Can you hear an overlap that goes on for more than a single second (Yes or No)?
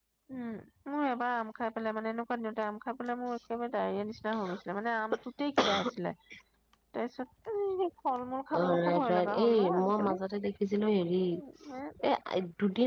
Yes